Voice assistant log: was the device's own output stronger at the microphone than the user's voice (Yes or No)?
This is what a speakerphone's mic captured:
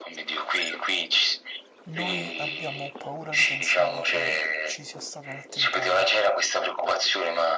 Yes